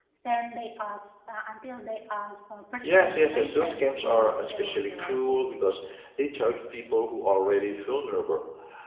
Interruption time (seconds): 2.8 s

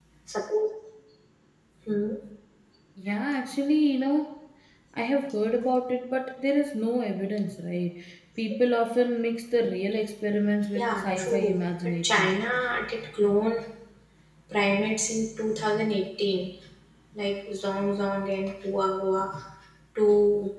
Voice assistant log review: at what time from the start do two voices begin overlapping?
10.8 s

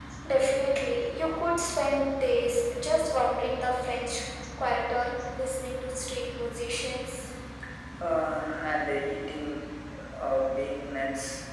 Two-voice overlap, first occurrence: none

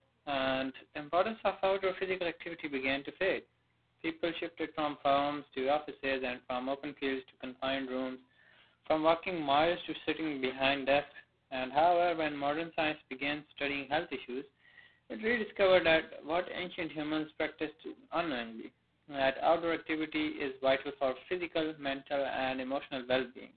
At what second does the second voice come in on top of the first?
none

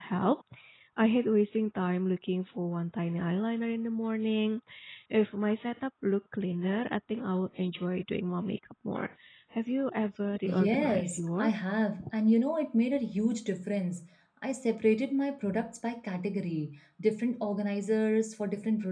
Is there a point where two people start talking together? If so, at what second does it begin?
10.4 s

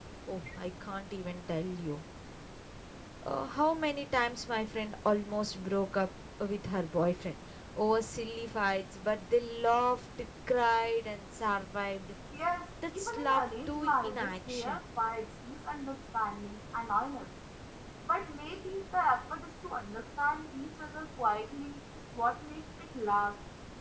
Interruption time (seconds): 13.0 s

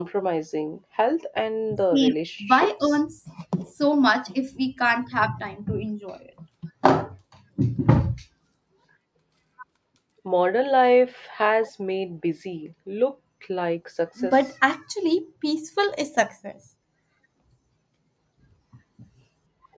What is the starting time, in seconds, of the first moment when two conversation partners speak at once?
1.7 s

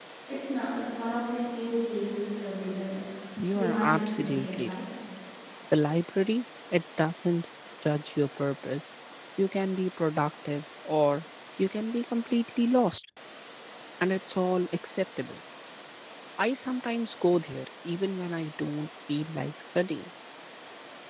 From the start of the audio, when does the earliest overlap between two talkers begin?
3.5 s

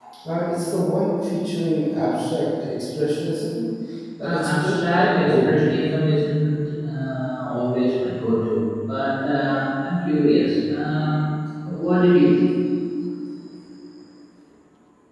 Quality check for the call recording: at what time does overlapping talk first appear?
4.2 s

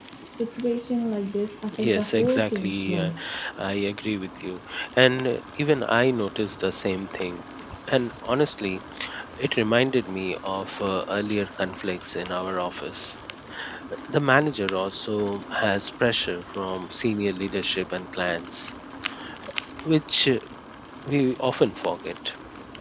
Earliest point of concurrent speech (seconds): 1.7 s

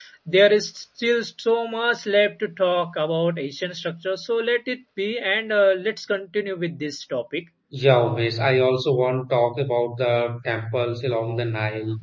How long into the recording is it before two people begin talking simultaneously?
none

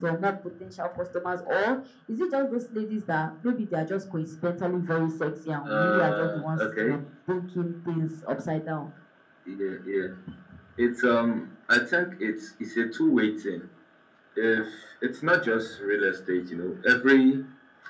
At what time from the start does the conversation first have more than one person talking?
5.7 s

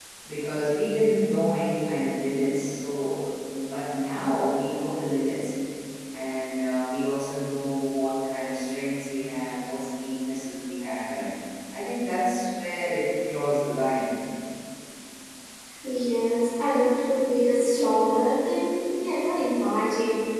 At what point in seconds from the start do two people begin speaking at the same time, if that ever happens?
none

